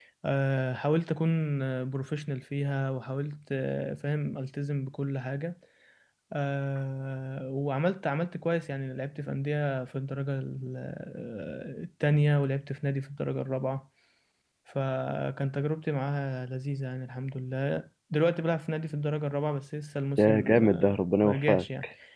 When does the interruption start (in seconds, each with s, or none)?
20.2 s